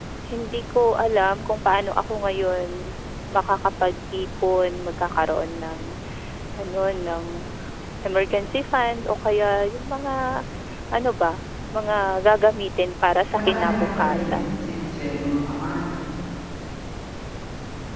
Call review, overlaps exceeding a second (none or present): present